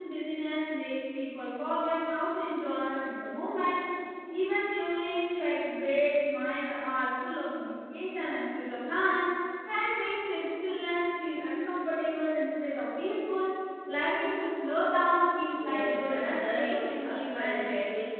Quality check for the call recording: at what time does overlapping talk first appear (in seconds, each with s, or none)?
15.5 s